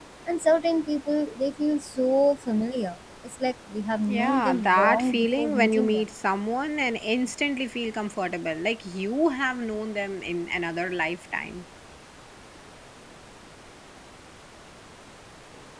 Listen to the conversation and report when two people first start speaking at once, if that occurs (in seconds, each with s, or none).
4.1 s